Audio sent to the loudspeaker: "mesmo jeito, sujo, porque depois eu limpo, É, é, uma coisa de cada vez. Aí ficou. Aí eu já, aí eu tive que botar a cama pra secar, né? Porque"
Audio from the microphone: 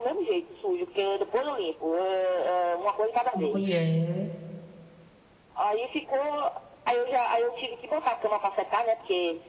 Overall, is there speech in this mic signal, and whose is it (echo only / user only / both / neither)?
both